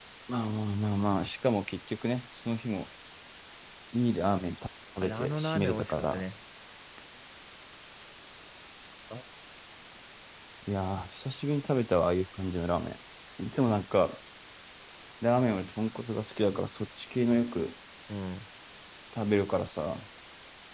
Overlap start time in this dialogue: 5.0 s

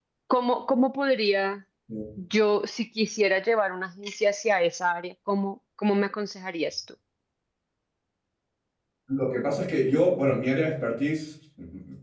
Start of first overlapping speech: none

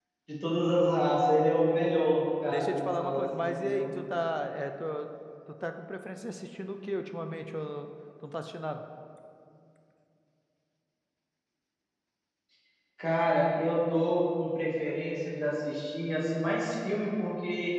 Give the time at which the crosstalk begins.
2.5 s

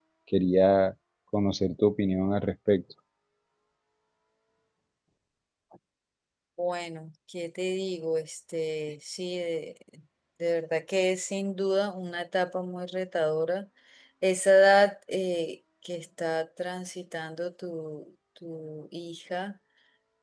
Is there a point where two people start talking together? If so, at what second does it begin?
none

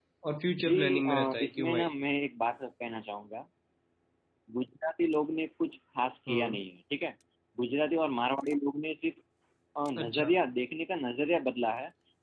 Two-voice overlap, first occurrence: 0.6 s

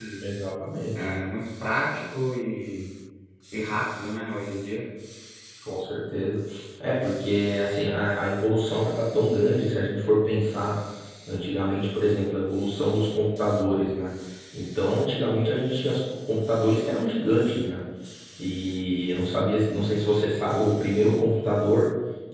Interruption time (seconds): none

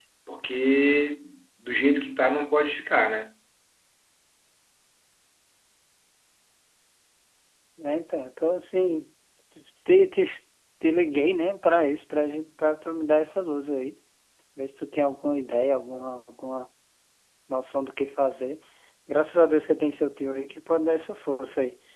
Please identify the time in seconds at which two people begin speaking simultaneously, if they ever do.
none

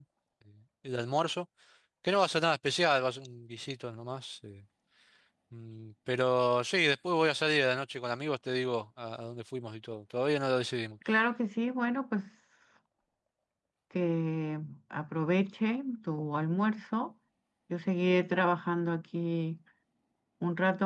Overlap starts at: none

